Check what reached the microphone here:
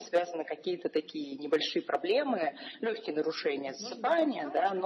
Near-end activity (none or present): present